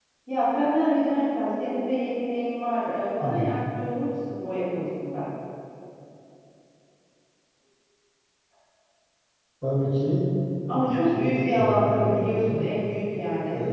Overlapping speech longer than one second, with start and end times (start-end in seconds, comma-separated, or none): 10.7-12.7